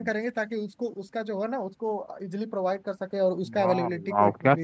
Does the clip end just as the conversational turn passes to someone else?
Yes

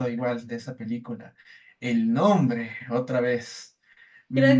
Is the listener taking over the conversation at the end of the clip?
Yes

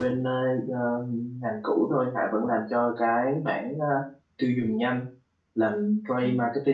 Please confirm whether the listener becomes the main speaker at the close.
No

